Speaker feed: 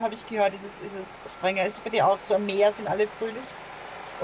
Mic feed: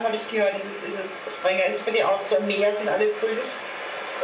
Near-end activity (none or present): none